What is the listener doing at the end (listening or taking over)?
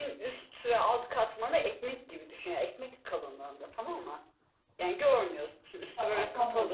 taking over